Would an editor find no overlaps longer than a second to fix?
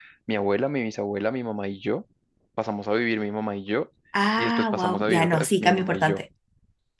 No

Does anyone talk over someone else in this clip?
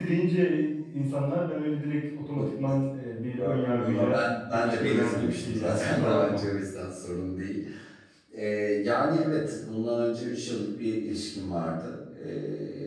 Yes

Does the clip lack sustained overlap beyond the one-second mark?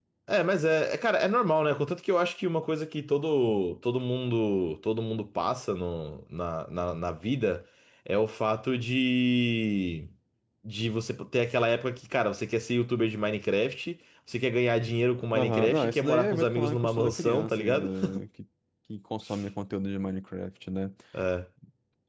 No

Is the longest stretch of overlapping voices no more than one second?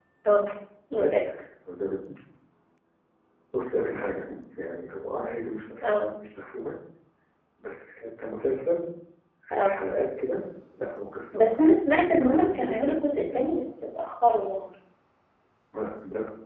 No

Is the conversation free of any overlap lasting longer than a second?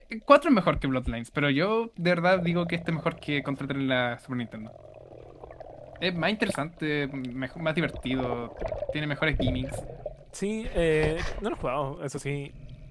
Yes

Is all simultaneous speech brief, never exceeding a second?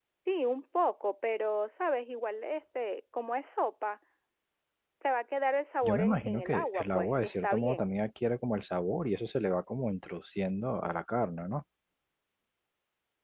No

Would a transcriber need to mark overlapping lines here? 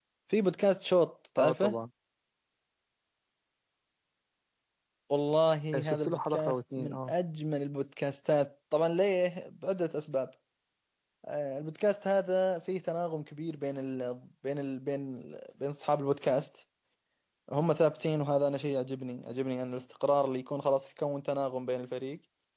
Yes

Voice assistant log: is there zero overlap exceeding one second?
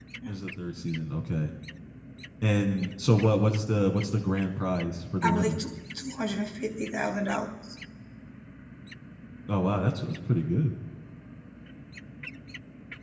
Yes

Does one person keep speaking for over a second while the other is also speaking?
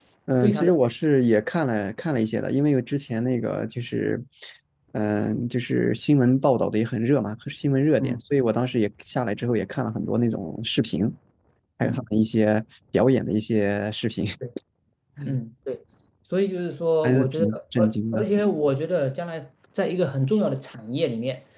Yes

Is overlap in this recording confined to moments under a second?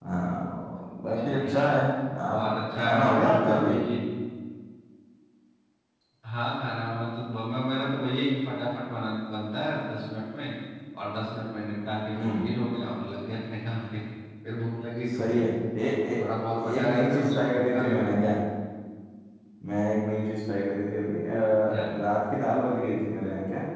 No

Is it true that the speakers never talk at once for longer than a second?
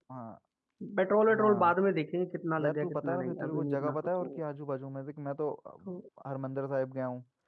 No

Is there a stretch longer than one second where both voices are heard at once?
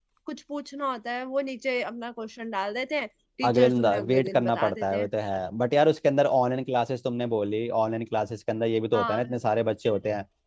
Yes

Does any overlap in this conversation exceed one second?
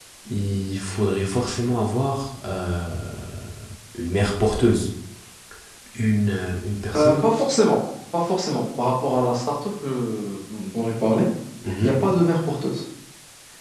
No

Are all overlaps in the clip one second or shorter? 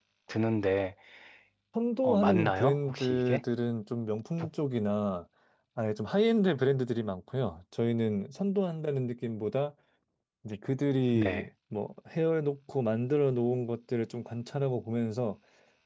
No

